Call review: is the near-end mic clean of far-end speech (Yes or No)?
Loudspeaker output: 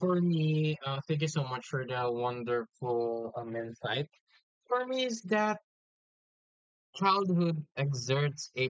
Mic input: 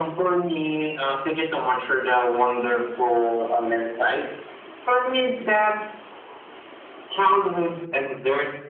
No